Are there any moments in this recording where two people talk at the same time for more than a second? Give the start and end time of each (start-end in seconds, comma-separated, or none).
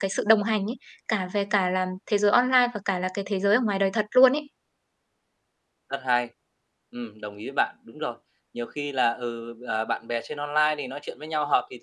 none